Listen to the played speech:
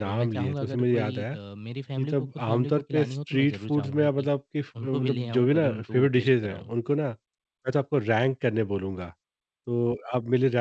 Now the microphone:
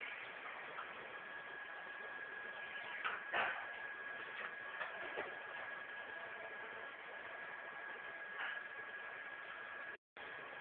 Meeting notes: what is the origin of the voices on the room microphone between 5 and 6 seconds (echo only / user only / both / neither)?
neither